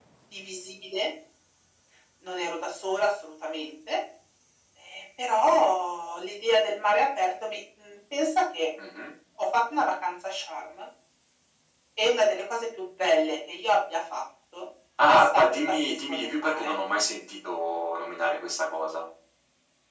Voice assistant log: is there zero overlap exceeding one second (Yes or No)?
No